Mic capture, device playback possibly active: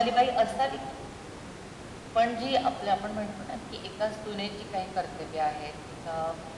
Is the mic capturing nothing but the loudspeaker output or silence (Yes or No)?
Yes